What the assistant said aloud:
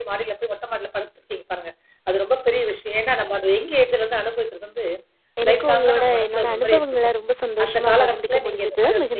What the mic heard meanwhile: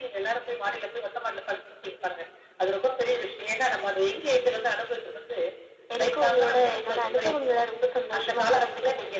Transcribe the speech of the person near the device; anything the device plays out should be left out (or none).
none